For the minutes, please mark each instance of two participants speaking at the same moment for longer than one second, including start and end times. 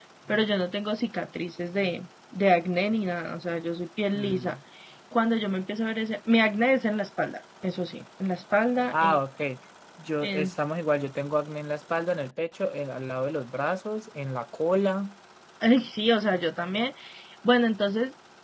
none

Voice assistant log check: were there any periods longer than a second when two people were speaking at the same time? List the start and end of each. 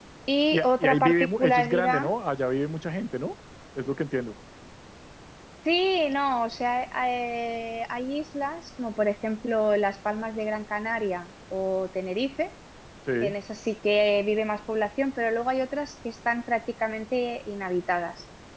0.5-2.0

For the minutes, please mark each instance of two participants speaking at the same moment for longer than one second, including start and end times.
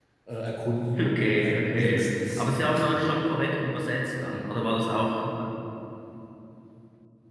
1.0-2.7

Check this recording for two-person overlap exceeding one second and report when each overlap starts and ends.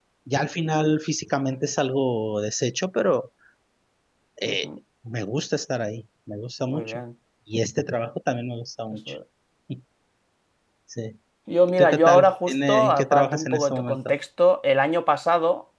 11.8-14.1

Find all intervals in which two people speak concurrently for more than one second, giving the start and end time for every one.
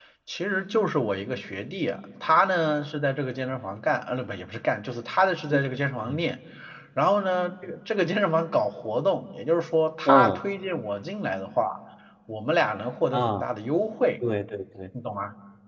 none

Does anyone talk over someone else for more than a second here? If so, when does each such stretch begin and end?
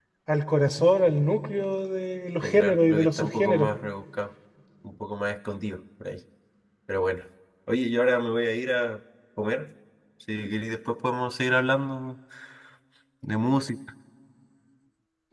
2.4-3.7

